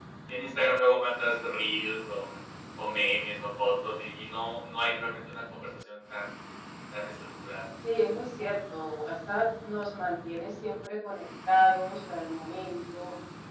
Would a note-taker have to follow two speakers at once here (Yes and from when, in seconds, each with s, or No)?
No